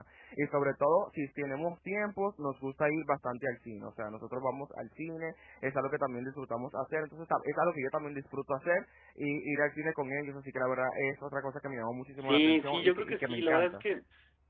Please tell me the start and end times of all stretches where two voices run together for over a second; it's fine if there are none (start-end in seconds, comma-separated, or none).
12.2-13.8